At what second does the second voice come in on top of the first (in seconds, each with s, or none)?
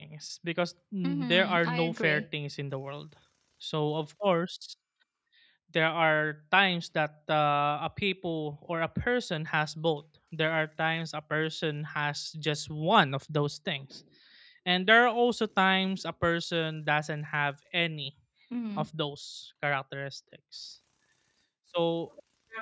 1.0 s